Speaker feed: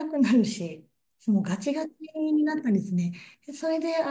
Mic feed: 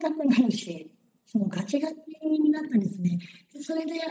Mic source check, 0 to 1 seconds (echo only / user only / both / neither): echo only